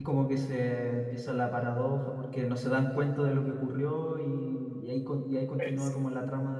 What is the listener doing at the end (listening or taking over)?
listening